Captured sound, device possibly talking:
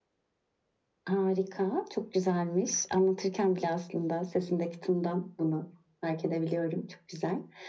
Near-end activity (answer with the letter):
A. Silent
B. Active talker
A